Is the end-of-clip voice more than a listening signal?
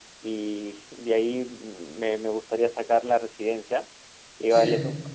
No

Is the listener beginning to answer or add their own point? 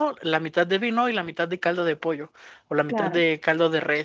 No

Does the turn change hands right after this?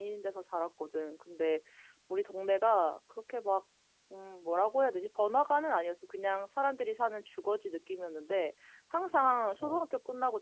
No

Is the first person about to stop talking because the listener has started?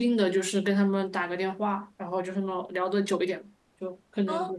No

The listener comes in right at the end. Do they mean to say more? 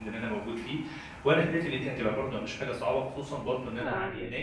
No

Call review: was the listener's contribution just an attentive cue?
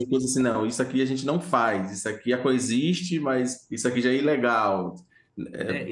No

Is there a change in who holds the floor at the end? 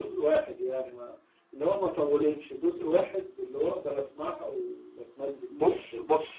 Yes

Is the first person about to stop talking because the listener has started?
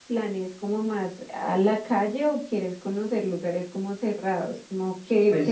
Yes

